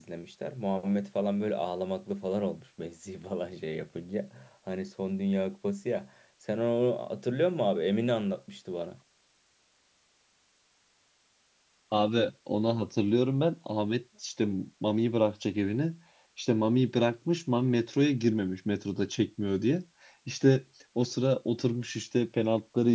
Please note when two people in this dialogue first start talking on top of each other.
none

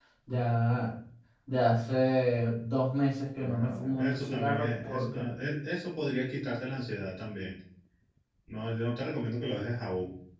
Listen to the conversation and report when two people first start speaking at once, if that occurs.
3.4 s

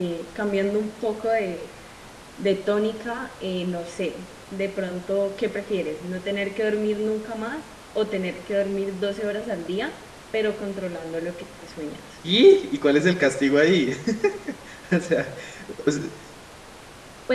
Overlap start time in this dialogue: none

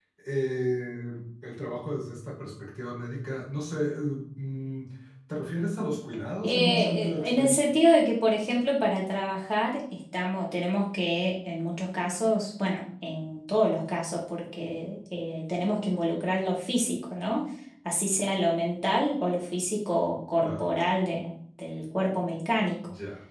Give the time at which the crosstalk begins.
6.4 s

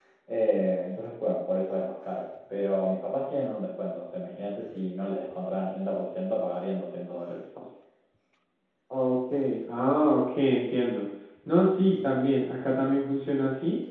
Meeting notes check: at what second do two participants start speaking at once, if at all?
none

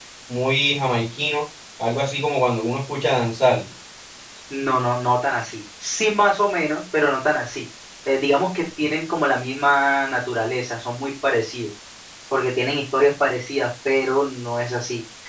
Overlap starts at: none

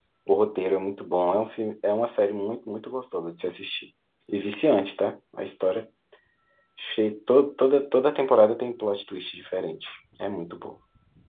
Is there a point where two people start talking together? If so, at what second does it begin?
none

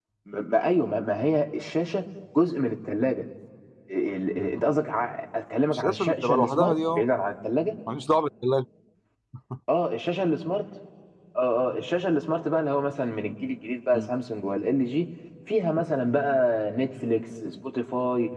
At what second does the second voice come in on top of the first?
5.7 s

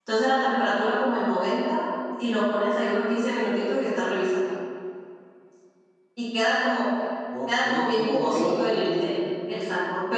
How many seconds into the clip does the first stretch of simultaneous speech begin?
7.5 s

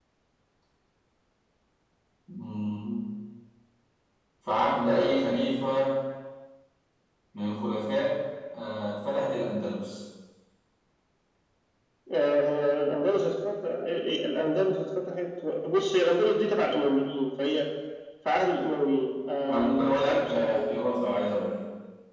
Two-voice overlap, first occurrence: 19.5 s

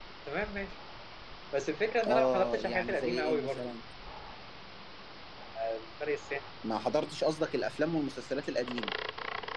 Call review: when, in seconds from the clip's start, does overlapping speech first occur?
2.1 s

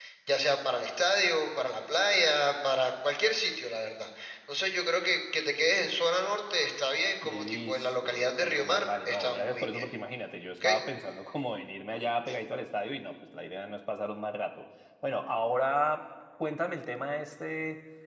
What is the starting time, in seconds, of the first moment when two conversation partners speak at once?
7.2 s

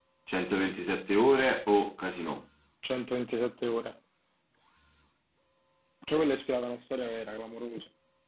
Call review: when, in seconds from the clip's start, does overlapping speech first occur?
none

